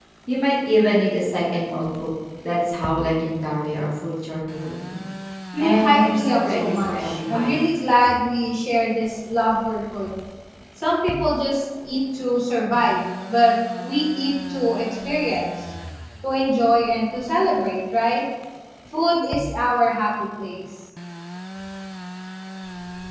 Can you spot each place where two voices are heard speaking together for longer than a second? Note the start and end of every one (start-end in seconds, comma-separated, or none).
5.6-7.5